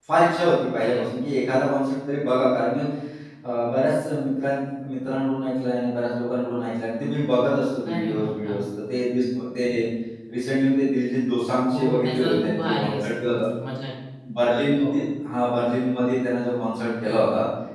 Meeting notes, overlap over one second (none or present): present